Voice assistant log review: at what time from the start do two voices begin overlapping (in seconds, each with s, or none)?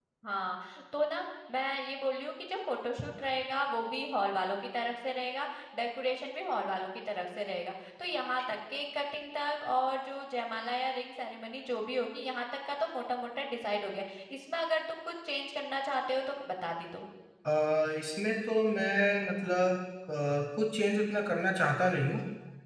none